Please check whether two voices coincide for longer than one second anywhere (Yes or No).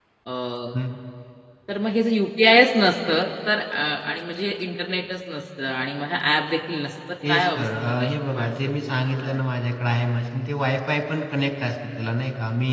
Yes